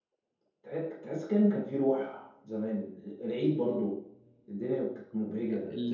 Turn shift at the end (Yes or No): Yes